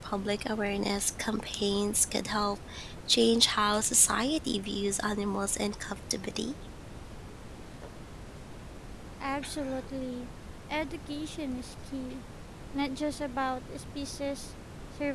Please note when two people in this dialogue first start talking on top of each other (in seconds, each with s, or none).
none